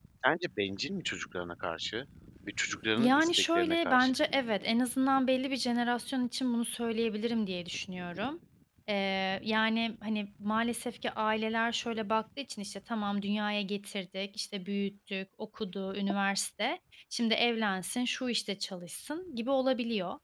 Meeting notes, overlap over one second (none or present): present